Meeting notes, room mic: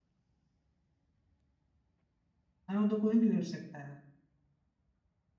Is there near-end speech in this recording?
Yes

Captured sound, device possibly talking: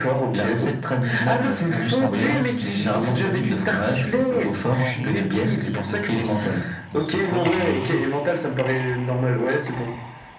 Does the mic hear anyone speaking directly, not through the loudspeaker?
Yes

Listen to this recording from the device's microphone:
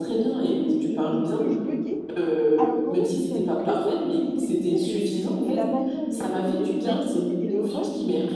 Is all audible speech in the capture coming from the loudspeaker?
No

